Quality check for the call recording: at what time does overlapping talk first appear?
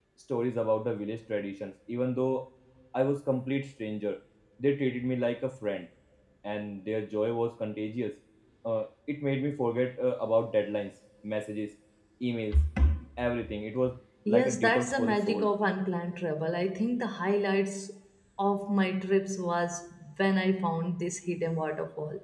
14 s

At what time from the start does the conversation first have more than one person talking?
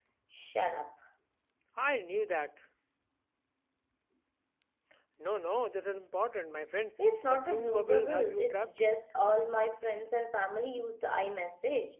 7 s

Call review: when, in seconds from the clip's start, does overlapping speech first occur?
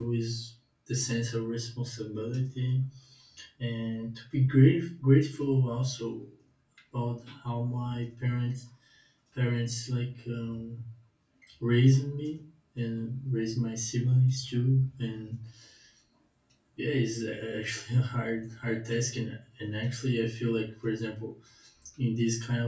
none

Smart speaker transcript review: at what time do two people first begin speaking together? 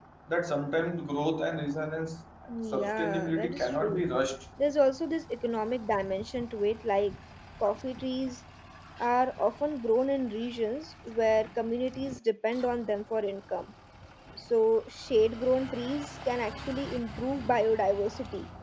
2 s

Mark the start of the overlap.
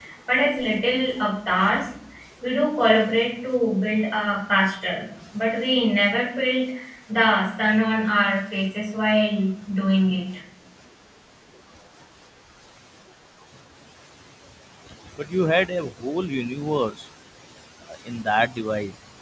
none

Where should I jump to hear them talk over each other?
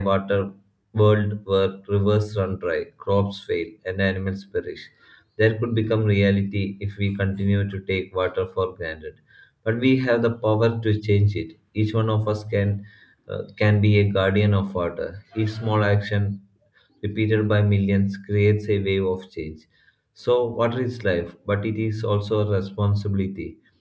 none

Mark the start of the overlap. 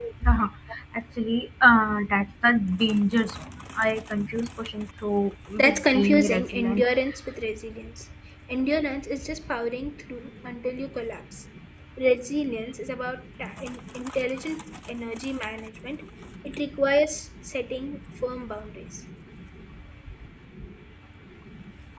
6 s

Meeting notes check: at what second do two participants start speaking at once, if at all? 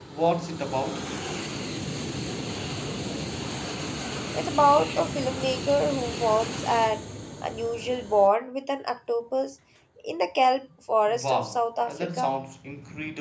11 s

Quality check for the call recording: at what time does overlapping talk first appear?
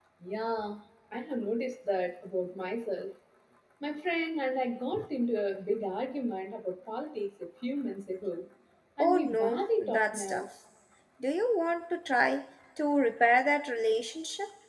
9 s

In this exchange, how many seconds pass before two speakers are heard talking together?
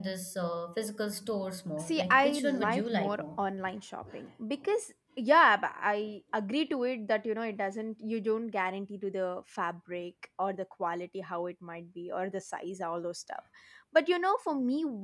2 s

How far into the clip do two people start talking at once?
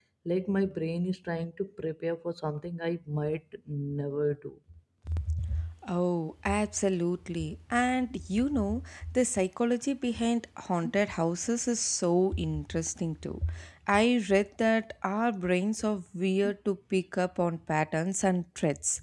none

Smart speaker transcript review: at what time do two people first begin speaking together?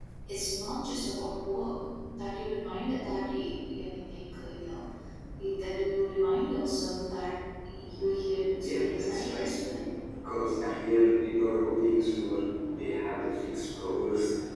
9 s

